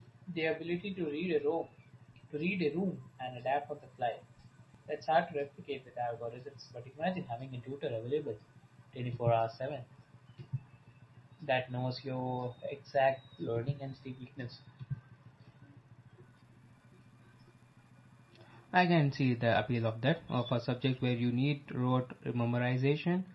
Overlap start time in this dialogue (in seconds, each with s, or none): none